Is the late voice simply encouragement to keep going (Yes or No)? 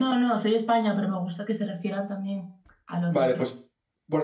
No